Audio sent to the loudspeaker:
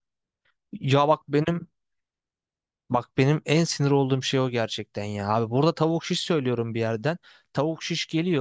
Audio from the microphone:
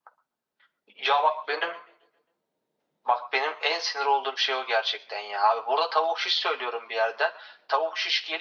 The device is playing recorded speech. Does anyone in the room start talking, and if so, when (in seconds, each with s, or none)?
none